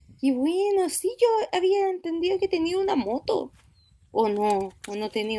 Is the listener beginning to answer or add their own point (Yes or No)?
Yes